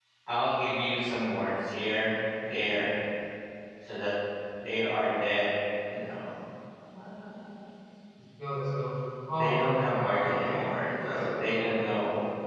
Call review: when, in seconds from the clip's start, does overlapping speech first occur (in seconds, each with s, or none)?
9.3 s